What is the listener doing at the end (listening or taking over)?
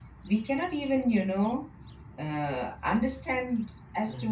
listening